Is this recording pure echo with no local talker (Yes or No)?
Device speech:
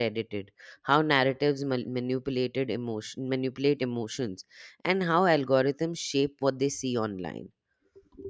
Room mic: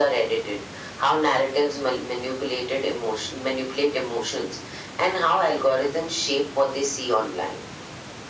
Yes